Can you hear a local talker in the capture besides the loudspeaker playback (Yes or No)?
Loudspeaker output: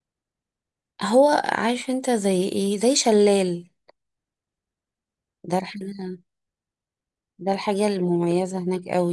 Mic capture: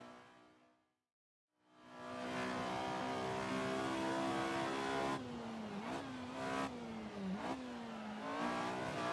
No